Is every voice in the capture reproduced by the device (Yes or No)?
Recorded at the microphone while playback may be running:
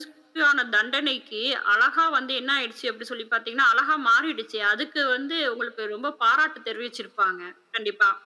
Yes